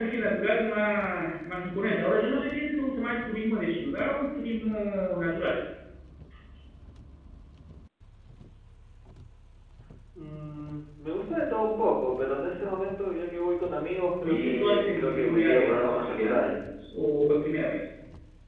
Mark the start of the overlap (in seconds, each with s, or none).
14.2 s